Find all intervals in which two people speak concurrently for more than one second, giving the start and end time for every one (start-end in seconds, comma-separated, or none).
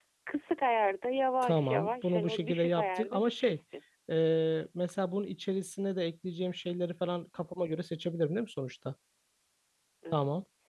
1.4-3.6